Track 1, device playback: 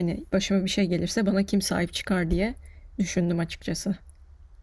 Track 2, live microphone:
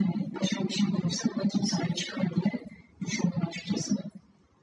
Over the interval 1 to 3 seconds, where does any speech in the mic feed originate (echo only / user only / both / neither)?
echo only